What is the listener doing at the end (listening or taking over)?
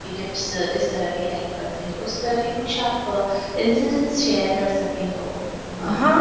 taking over